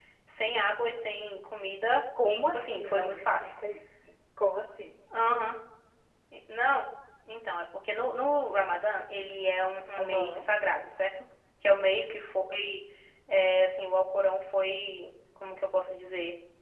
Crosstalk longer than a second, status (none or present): present